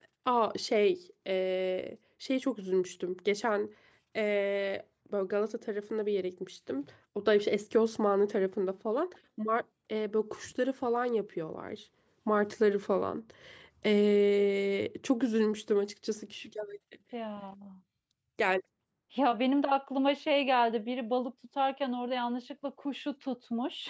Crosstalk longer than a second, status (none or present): none